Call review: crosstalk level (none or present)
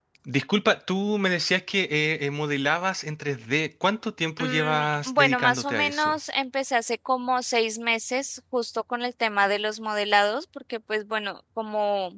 present